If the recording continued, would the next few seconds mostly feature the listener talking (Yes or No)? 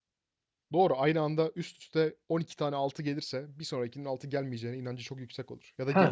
Yes